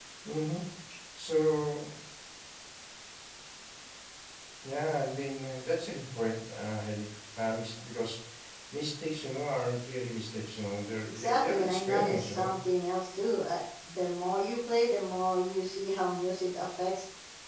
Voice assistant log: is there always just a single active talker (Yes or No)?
No